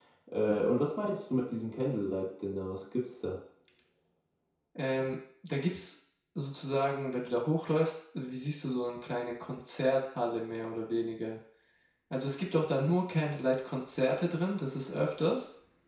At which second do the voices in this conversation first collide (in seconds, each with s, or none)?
none